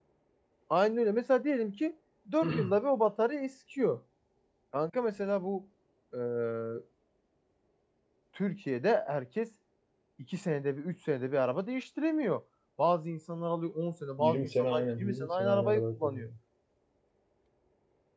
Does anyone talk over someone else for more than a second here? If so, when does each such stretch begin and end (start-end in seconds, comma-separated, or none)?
14.2-16.3